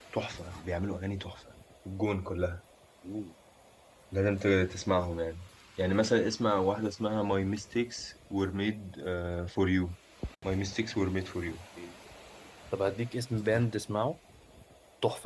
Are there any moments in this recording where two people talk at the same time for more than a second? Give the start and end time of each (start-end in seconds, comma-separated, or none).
none